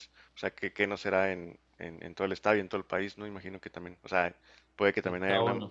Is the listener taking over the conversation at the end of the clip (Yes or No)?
No